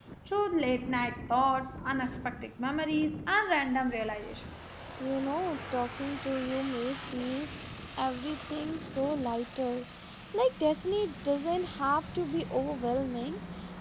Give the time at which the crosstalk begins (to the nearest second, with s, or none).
none